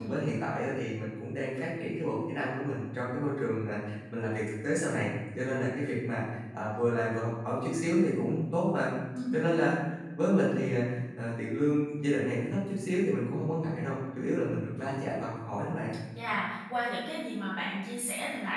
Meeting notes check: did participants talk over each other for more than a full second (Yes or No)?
No